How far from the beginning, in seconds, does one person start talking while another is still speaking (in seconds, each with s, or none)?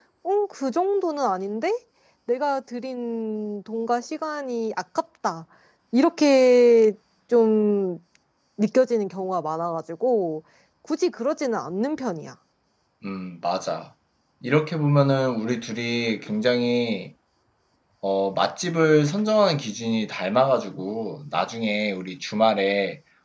none